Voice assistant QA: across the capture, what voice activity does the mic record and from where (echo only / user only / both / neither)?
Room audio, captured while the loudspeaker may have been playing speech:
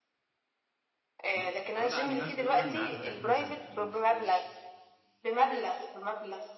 both